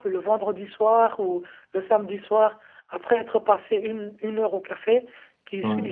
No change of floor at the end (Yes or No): Yes